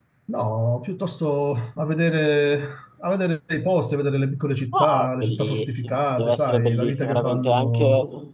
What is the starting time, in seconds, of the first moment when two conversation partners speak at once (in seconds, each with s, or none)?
4.7 s